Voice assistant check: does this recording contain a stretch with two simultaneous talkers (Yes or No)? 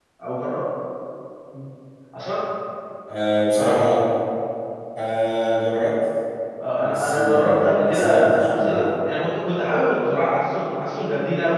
Yes